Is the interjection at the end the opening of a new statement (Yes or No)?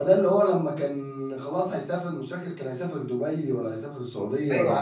Yes